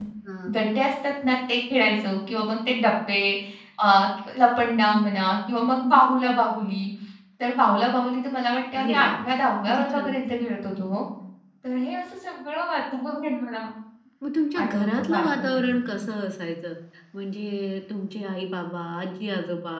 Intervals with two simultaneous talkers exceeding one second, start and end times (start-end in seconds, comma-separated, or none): 14.6-16.0